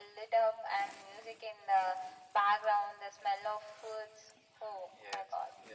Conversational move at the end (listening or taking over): taking over